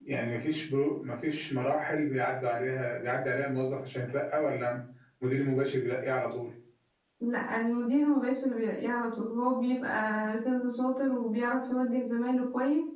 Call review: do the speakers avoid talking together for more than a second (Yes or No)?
Yes